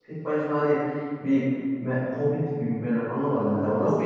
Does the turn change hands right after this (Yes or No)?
Yes